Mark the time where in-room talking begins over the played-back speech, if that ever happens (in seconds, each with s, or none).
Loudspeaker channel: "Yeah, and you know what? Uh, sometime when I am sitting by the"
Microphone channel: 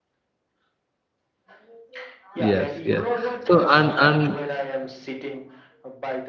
2.4 s